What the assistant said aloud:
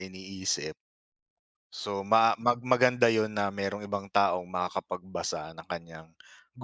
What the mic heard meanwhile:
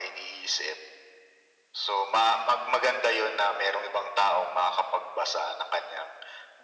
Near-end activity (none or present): none